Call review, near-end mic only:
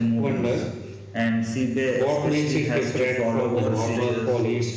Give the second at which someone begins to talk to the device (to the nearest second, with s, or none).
3 s